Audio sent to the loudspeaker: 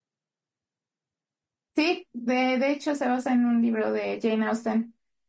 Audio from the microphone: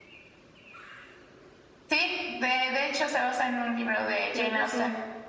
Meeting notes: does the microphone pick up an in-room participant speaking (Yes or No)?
Yes